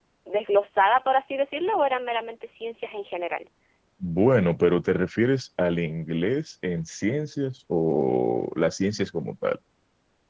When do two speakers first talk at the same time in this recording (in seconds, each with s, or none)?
none